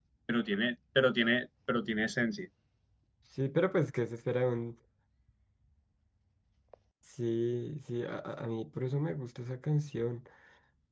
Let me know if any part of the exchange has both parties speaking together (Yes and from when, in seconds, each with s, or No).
No